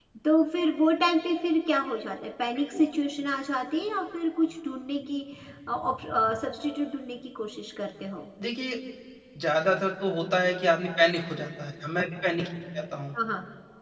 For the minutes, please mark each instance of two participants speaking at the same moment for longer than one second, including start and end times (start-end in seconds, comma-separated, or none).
none